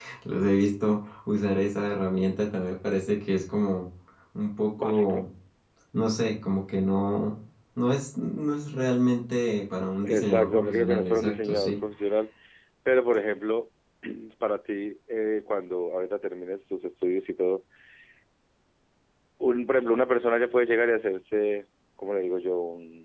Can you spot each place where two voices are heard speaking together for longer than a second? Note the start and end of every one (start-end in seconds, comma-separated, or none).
10.0-11.7